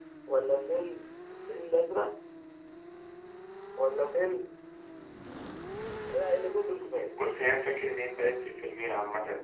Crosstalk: none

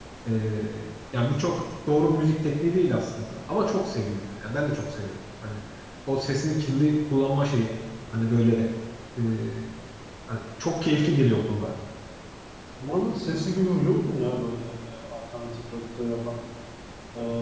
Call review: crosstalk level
none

